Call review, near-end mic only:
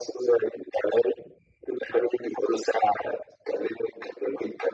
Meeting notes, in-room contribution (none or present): none